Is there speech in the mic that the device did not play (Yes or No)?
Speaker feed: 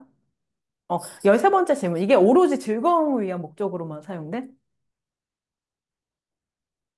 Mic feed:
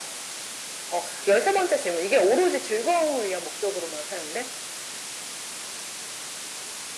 No